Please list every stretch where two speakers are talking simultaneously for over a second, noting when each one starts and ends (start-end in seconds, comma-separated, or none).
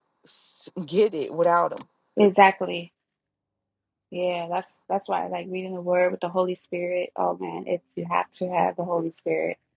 none